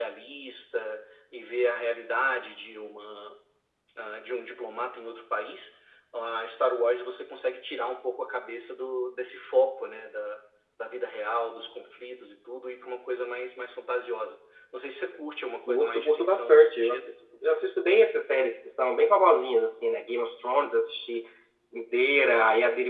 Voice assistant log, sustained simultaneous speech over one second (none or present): present